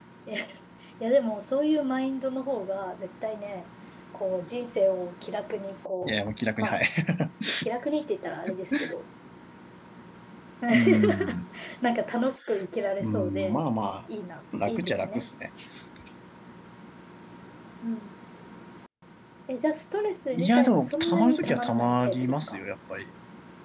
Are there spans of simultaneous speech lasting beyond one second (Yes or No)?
Yes